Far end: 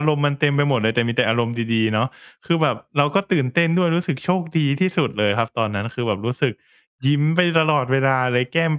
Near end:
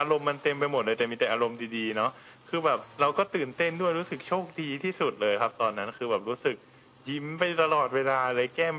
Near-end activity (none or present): none